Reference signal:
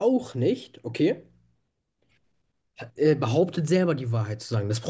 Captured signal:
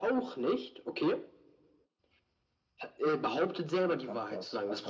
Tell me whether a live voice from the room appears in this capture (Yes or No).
Yes